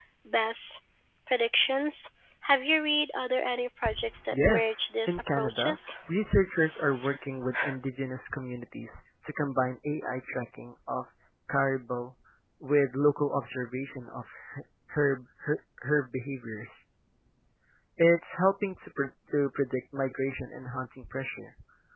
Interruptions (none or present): present